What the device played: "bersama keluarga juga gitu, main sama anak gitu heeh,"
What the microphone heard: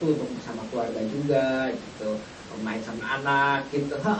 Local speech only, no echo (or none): none